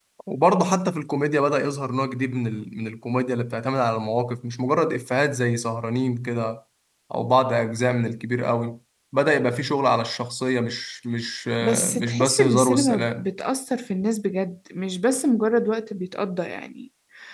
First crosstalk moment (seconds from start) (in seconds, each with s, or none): 11.6 s